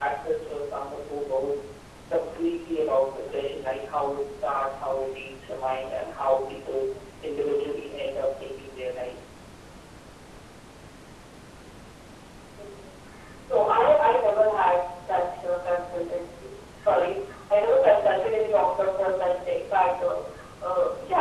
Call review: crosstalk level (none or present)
none